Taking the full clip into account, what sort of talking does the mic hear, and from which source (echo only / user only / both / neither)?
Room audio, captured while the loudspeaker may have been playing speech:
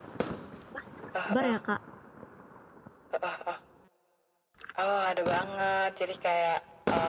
both